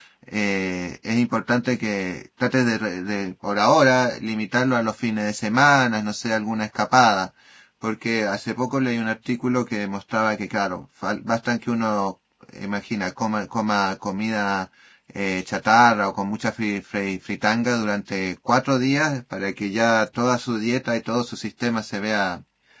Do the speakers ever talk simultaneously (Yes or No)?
No